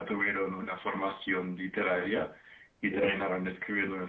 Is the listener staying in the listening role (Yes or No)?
Yes